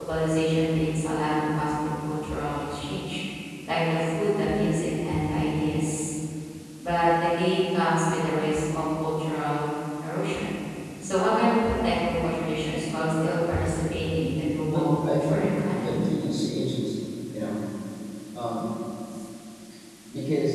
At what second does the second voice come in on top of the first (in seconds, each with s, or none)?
14.7 s